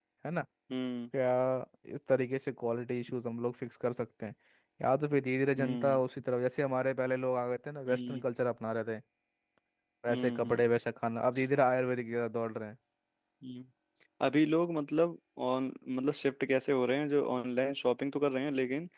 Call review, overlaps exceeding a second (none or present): none